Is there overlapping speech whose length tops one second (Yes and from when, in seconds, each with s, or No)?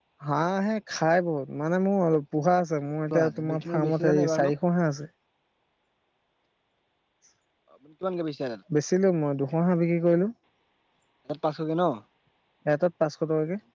Yes, from 3.1 s